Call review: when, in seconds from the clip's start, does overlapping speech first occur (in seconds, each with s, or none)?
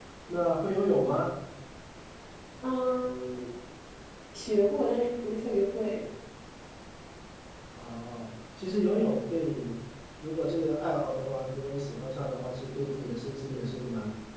none